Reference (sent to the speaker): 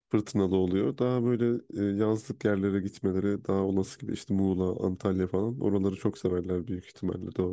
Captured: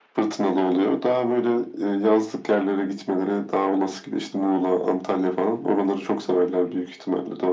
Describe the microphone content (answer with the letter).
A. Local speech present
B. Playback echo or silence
B